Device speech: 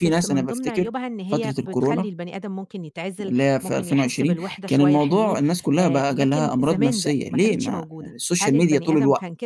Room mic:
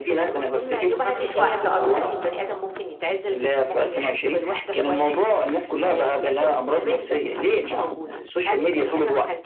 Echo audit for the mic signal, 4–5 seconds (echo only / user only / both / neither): echo only